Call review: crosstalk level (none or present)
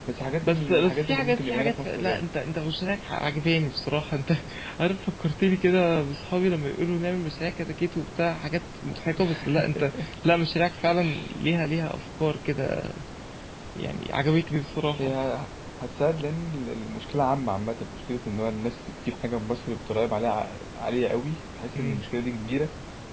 present